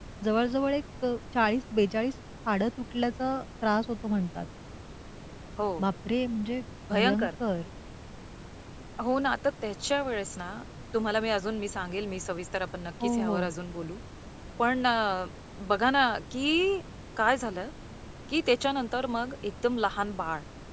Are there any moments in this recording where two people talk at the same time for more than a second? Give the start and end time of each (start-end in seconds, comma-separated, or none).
none